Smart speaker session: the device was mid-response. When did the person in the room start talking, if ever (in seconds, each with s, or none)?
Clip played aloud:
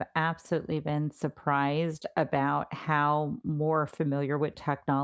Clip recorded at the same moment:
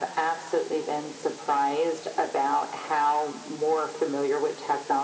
none